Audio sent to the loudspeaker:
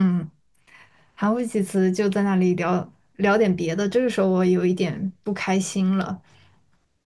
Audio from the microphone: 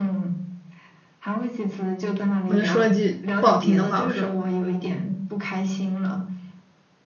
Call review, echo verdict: present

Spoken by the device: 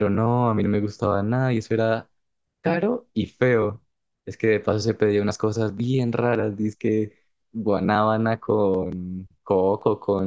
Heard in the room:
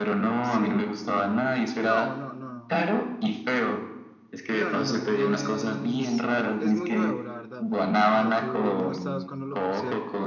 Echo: present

